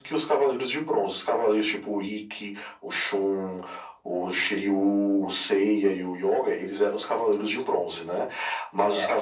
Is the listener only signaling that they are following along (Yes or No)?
Yes